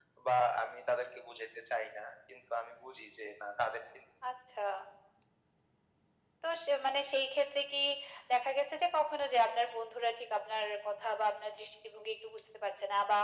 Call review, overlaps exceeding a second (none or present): none